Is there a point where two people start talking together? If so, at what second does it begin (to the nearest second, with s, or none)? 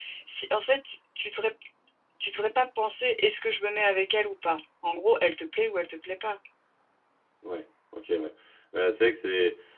none